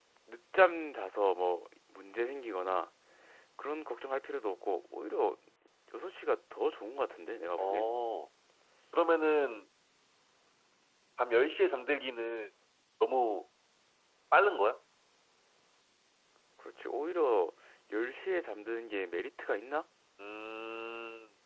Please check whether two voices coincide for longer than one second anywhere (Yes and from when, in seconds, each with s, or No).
No